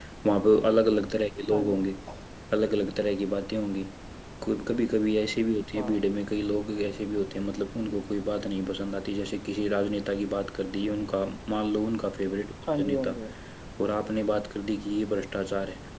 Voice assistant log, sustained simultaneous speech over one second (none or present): none